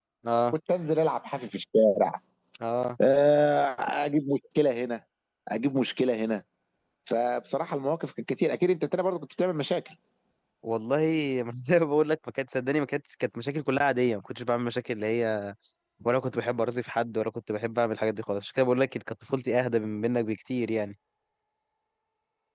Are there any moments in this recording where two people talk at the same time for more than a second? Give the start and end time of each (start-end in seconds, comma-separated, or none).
none